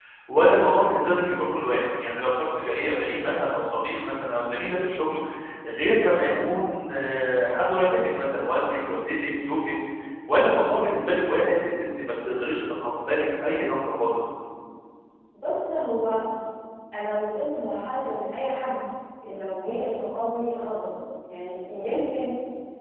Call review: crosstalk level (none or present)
none